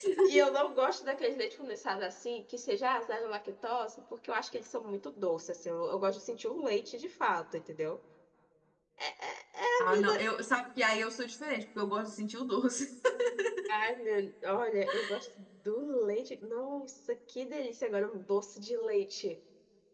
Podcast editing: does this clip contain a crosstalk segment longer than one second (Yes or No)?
No